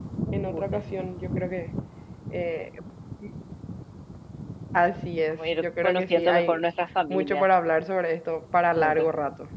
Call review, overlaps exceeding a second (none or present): present